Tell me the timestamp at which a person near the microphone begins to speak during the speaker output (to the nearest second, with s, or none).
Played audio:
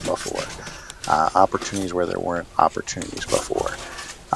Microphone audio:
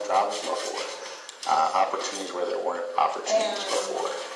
3 s